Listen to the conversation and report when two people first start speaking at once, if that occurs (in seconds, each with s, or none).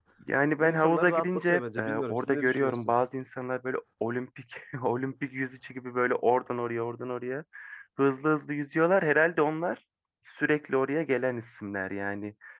0.6 s